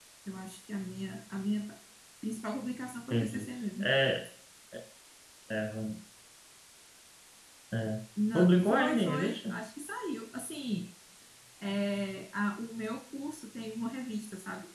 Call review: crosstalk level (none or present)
present